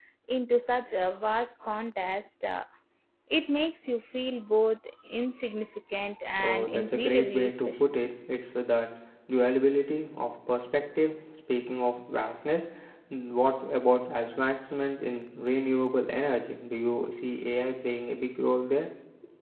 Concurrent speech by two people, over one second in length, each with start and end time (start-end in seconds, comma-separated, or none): 6.4-7.9